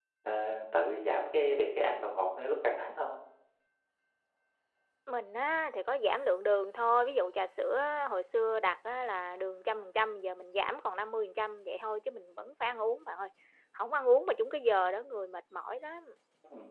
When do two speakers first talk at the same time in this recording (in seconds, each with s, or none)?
none